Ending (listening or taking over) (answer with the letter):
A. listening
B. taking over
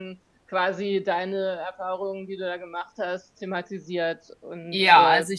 B